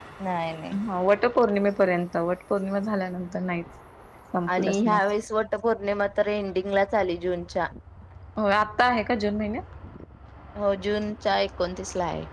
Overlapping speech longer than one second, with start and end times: none

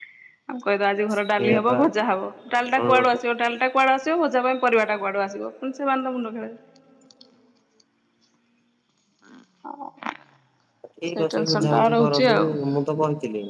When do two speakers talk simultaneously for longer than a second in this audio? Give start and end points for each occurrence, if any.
11.2-12.4

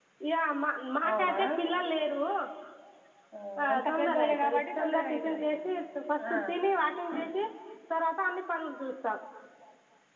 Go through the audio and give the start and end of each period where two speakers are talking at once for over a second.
3.7-5.7

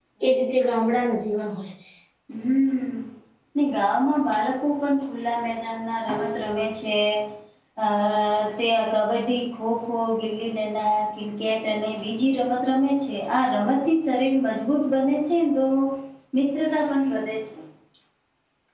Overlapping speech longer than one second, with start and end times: none

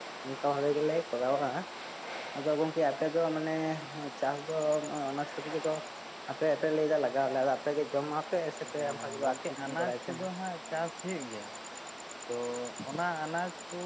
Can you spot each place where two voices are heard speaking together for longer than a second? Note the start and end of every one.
8.8-10.2

